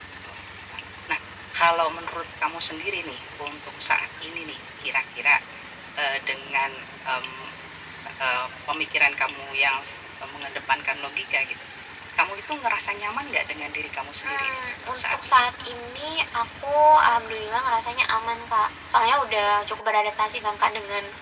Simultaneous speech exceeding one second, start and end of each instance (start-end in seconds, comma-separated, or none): 14.2-15.4